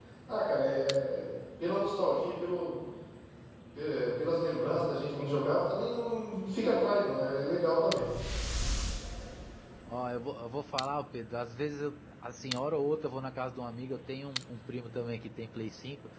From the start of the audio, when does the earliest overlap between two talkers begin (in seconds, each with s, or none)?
none